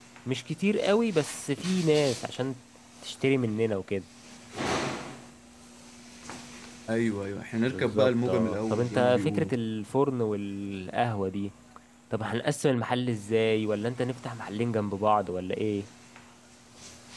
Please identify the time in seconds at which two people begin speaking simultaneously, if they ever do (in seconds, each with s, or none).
7.7 s